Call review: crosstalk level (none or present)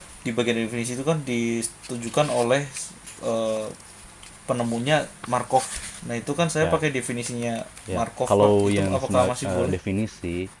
present